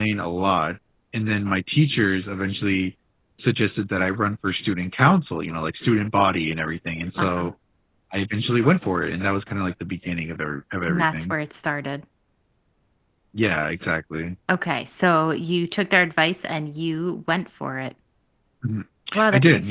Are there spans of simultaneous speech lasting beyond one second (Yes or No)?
No